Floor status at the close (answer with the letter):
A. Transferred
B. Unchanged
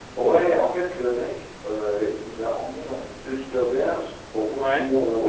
B